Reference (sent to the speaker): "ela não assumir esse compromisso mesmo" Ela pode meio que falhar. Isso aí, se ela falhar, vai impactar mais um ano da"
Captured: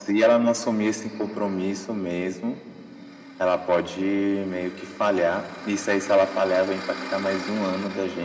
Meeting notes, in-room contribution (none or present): none